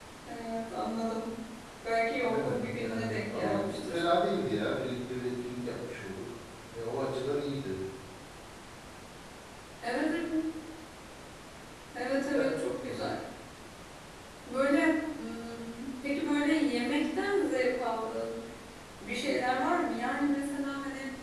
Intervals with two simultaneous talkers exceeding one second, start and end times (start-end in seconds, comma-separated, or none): 2.2-4.0